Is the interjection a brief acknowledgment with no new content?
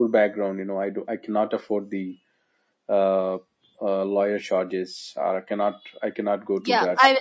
No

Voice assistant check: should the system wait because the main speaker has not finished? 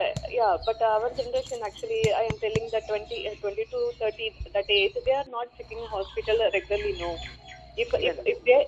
Yes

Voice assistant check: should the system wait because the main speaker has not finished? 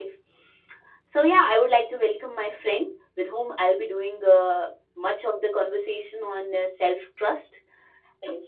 Yes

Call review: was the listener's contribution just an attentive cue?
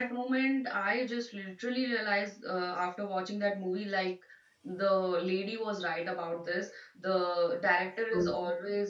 Yes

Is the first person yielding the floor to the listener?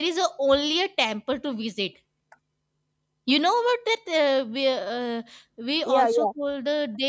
No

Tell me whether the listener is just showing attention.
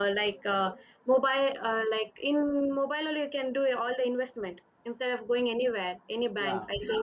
No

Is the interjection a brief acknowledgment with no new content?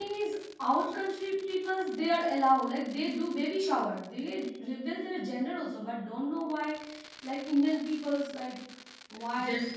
No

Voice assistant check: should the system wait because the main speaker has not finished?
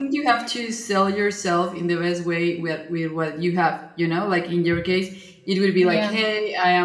Yes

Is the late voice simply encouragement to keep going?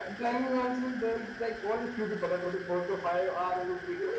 No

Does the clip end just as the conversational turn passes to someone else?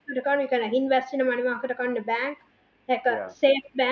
No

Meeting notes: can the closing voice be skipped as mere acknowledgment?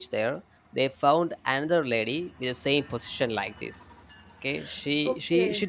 Yes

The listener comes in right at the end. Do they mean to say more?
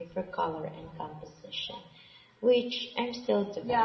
Yes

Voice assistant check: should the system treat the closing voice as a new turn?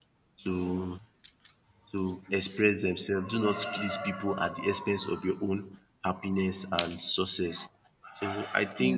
No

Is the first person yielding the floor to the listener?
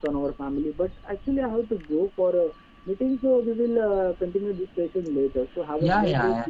Yes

